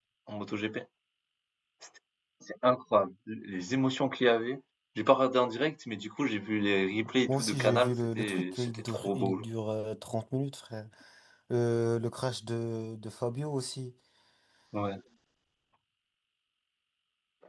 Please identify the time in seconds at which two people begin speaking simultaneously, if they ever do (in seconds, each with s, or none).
7.3 s